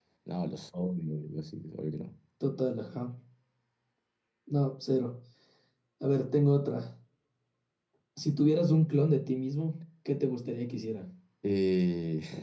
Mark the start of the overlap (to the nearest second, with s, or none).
none